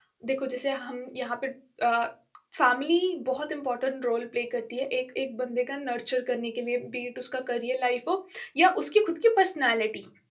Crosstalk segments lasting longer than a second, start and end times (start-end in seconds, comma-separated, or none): none